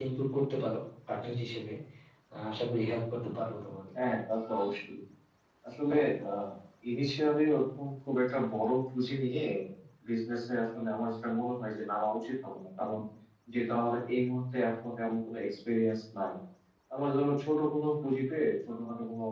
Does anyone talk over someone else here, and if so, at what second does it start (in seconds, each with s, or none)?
none